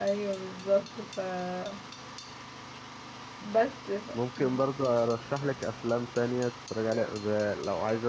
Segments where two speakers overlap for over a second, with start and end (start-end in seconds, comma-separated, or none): none